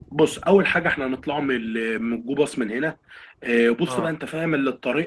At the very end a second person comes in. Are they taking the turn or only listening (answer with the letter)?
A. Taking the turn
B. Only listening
B